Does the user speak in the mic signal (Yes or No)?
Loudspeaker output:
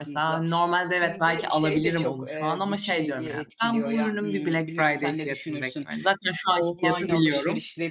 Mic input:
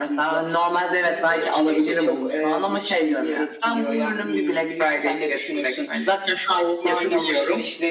No